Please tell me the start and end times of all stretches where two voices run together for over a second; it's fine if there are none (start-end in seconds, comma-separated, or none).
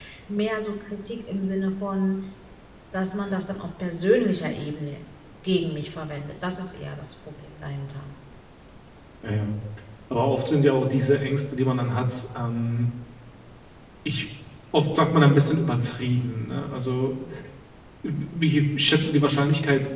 none